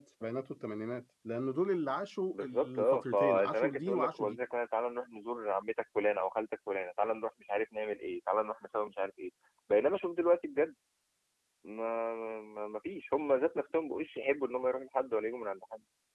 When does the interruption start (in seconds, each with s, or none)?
2.3 s